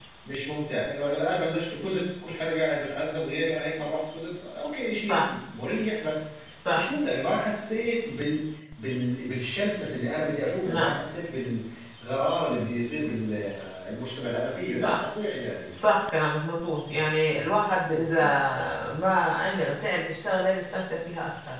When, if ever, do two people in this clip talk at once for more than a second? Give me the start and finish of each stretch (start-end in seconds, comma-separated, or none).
none